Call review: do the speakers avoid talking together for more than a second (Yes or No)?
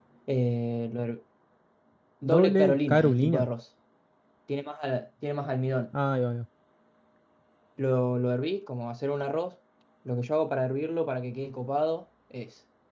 No